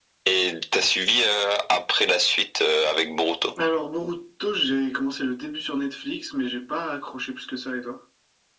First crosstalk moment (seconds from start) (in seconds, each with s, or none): none